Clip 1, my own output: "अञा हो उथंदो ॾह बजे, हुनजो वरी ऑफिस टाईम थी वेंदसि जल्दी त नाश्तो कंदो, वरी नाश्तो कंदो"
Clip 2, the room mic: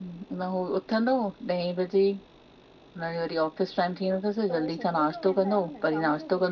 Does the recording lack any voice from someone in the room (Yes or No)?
No